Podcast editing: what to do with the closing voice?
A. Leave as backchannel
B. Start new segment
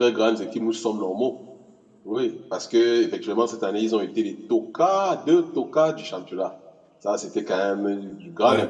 B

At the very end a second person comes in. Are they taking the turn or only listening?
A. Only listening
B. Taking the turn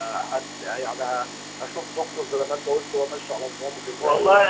B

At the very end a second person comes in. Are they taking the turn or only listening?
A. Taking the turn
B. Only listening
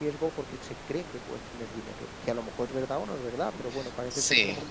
B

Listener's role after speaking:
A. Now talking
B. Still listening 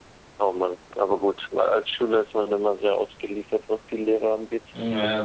A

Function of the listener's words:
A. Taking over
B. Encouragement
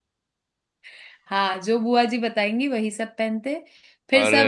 B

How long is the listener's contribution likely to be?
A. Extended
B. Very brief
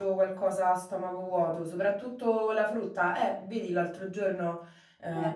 B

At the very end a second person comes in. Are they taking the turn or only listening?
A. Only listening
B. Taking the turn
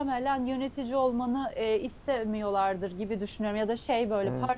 A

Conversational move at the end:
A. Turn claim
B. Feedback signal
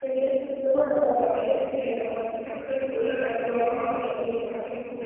A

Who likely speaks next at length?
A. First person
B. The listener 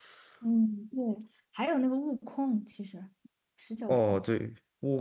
B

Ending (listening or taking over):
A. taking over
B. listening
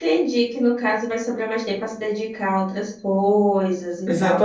A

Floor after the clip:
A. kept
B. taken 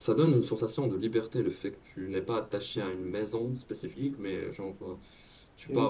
B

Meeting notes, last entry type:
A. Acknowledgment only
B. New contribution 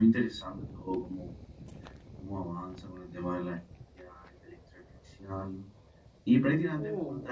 A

